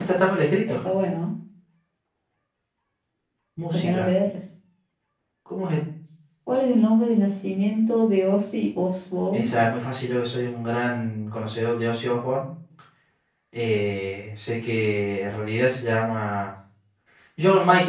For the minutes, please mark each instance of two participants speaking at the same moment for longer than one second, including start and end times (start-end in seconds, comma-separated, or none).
none